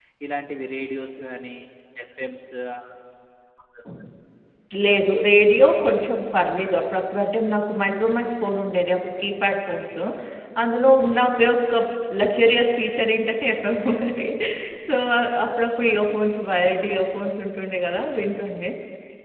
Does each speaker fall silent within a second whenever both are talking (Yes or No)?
Yes